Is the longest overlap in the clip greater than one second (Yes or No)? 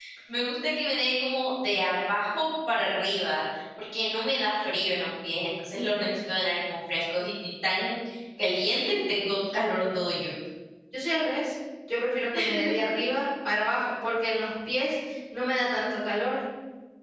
No